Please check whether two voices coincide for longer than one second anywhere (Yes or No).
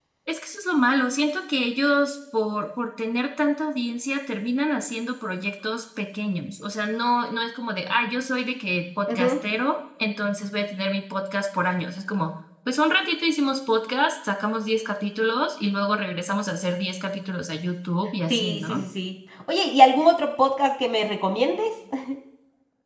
No